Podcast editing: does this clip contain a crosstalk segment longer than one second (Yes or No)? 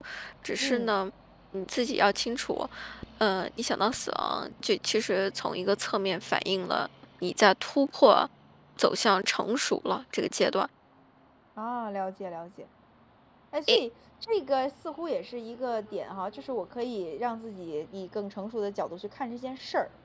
No